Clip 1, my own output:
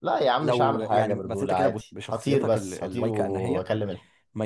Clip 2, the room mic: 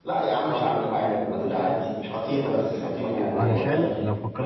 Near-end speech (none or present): present